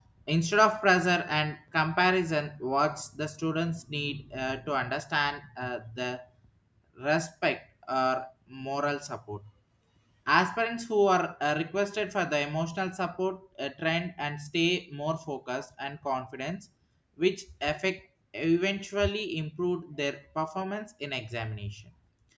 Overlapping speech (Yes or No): No